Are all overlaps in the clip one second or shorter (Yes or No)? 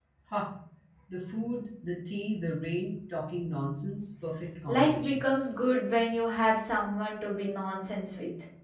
Yes